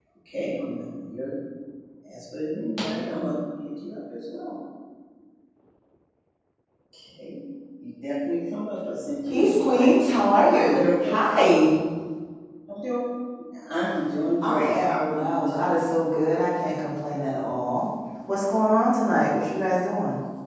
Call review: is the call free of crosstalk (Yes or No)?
No